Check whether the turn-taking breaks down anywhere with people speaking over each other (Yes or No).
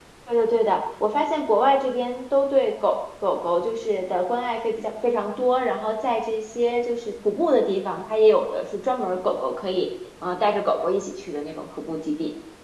No